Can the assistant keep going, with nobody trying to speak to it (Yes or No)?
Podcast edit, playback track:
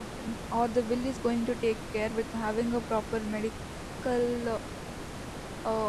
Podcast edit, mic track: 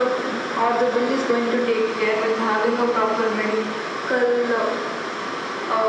Yes